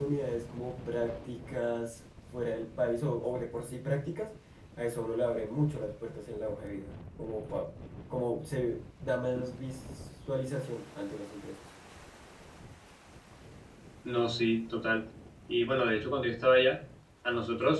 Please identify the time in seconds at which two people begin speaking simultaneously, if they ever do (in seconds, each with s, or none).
none